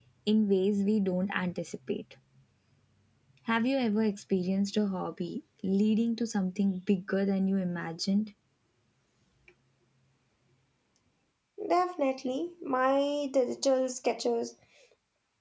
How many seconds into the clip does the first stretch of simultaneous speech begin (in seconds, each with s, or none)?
none